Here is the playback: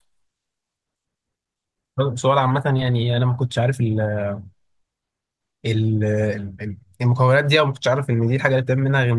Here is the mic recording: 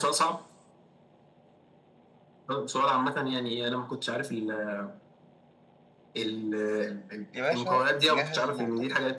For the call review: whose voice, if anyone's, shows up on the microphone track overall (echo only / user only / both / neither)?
both